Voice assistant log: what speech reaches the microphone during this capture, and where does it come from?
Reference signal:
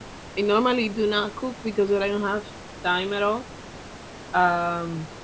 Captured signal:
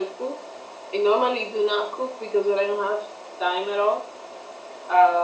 echo only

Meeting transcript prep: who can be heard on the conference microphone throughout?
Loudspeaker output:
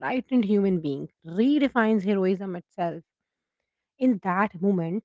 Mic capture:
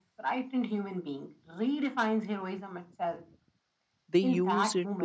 both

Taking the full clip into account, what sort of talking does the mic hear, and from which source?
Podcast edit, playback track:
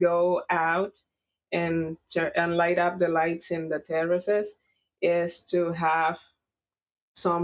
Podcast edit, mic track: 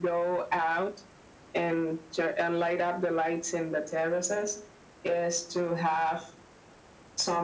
echo only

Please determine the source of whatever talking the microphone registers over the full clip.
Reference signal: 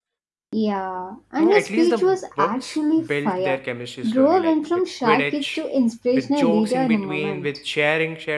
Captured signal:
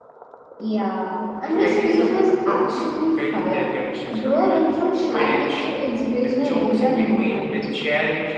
echo only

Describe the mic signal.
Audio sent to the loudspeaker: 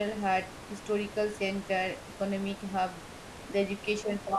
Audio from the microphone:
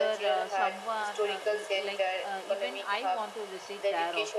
both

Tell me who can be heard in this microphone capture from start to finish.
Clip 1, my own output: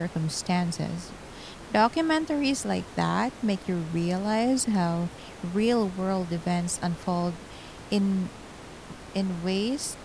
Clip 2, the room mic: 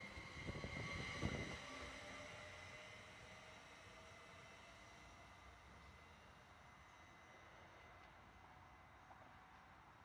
neither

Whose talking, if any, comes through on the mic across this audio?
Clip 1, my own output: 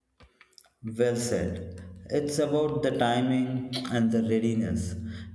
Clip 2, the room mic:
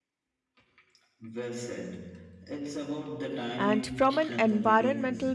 both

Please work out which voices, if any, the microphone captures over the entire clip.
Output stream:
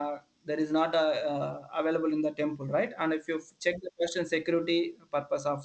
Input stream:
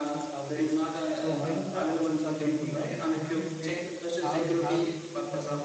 both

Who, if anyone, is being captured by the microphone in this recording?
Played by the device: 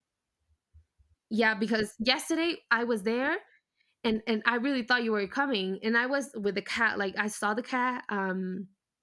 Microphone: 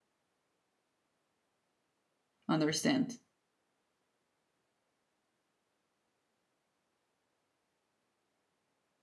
user only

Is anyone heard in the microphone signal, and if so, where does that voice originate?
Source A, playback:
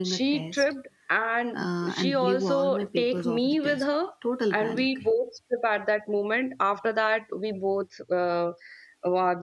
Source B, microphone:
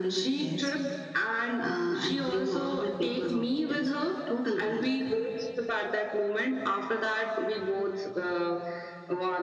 echo only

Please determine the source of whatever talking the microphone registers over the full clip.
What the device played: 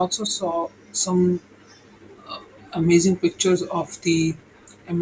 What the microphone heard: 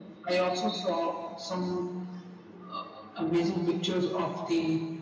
echo only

